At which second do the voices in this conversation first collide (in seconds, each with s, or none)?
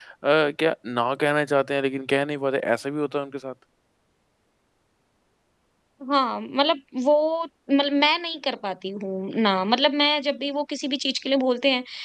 none